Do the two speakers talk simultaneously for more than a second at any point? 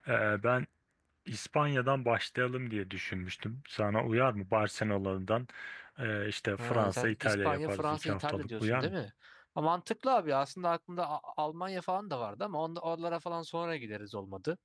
Yes, from 6.6 s

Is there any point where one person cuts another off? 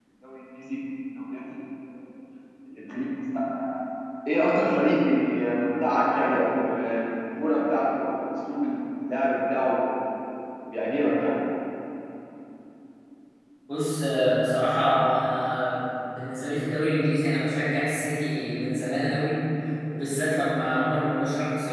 No

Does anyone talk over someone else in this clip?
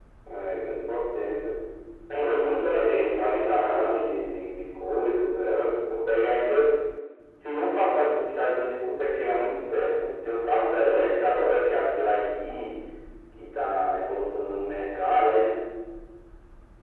Yes, from 2.1 s

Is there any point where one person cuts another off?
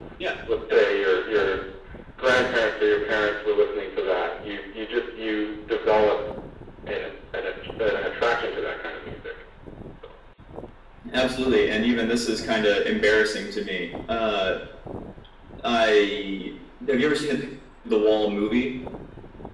No

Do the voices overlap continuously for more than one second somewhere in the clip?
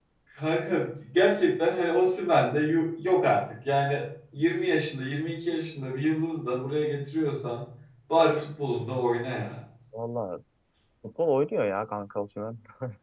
No

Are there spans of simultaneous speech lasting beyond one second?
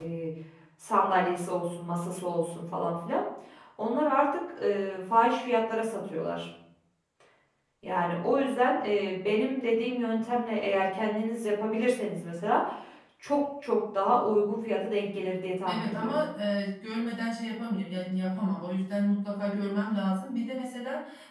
No

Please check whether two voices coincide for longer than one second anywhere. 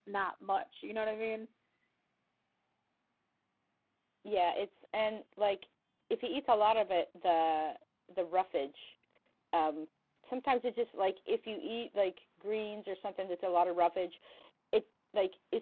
No

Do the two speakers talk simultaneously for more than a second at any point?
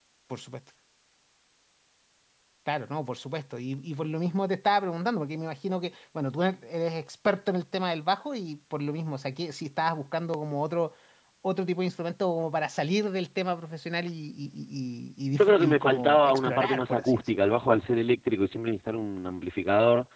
Yes, from 15.4 s

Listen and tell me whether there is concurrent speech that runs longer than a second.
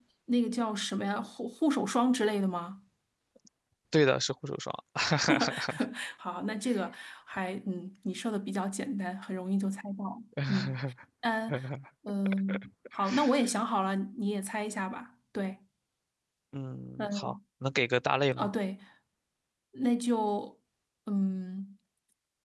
No

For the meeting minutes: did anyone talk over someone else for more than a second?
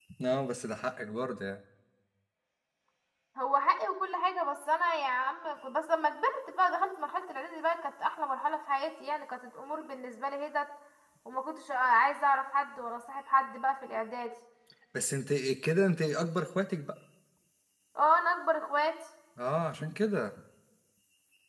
No

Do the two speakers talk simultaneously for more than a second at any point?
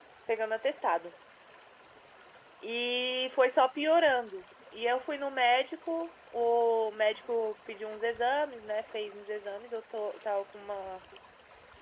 No

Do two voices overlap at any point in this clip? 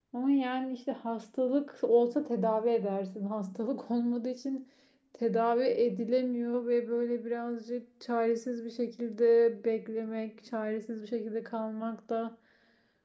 No

